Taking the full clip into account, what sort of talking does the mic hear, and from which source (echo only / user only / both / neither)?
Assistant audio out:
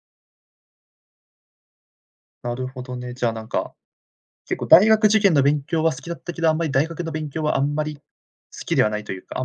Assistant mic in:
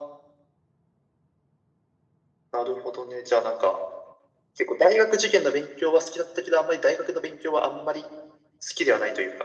echo only